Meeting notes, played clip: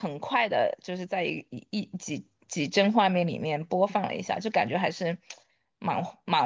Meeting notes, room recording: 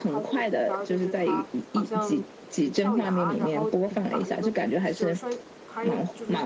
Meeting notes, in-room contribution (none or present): present